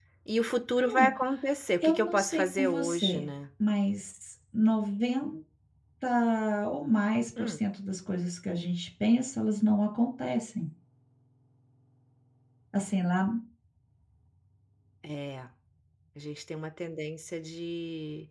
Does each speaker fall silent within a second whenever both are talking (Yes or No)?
No